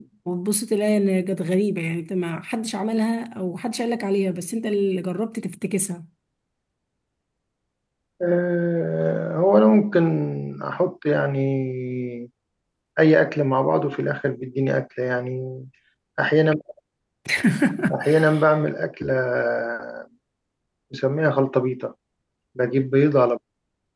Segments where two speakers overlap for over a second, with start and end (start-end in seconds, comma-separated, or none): none